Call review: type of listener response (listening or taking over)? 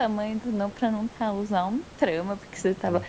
listening